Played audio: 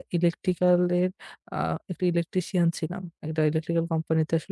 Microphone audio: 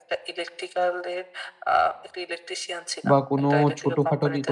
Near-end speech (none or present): present